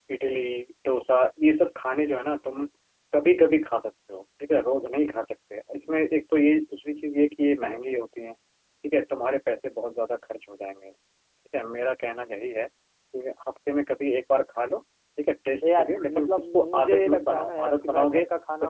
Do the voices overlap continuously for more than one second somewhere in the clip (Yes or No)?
Yes